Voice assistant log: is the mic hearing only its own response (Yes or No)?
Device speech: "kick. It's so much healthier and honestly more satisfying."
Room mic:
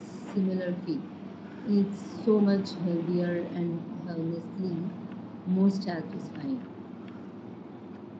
Yes